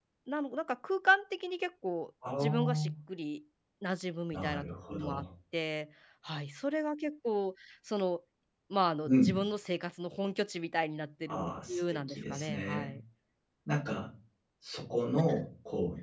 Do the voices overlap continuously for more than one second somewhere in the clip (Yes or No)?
Yes